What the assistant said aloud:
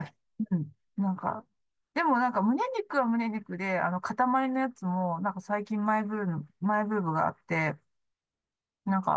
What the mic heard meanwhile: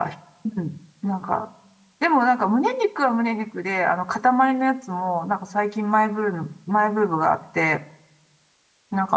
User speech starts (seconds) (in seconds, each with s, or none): none